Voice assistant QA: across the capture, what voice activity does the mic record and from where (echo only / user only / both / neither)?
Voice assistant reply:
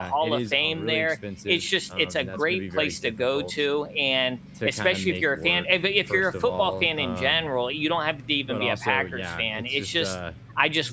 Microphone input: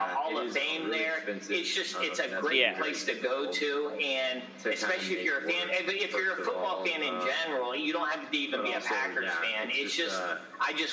both